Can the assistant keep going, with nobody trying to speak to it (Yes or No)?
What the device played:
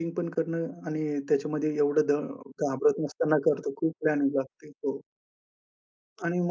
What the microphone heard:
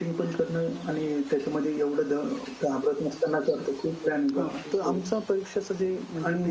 No